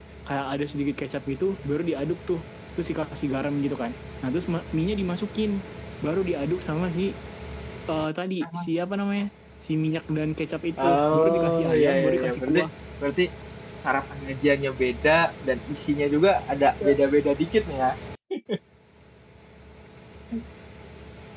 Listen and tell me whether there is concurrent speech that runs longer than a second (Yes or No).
Yes